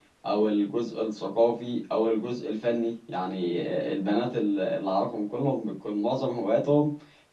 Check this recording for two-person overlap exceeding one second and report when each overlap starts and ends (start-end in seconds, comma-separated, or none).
none